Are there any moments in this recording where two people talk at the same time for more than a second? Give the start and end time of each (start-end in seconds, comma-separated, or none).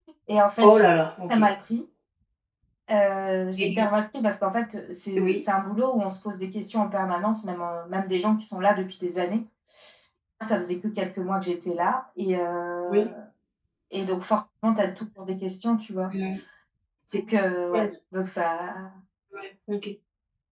none